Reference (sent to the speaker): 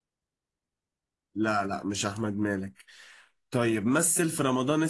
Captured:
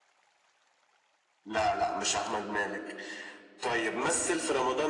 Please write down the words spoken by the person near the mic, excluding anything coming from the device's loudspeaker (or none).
none